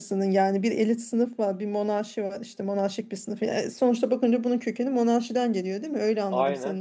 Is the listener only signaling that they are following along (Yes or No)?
Yes